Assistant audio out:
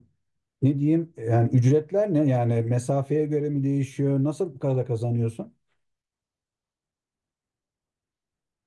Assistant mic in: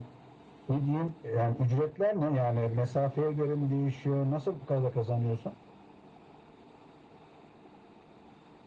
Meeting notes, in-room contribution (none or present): none